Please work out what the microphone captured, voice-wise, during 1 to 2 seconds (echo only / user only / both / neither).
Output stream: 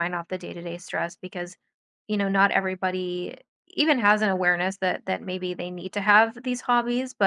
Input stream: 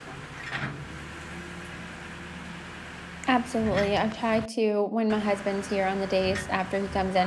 neither